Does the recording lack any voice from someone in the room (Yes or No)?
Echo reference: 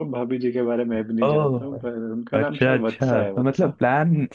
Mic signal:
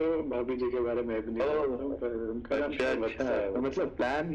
Yes